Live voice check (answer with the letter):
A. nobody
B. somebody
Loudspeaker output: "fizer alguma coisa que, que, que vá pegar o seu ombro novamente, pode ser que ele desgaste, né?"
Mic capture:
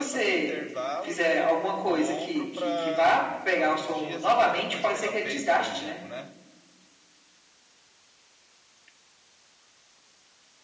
B